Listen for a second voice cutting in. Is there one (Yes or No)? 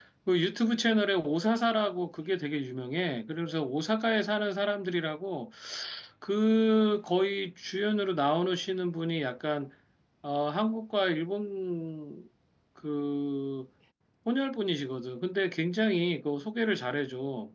No